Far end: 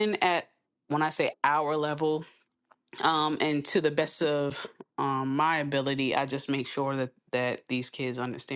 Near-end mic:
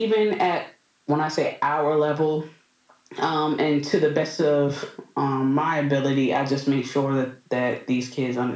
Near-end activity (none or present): none